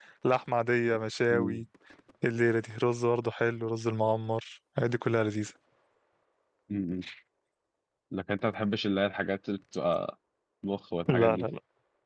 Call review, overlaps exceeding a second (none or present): none